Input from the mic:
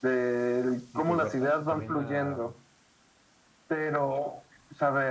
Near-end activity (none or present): present